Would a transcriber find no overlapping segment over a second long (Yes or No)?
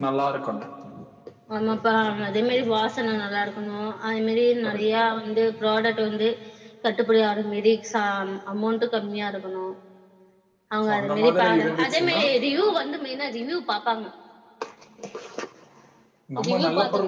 No